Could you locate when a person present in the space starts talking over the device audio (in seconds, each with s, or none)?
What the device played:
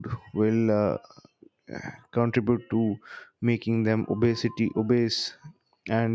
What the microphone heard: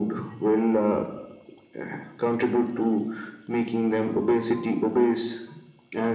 none